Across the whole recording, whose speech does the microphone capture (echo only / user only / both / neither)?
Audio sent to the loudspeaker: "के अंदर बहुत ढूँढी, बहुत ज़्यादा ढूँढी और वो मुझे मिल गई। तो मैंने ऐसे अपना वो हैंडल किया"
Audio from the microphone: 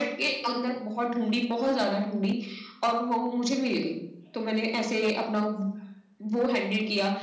echo only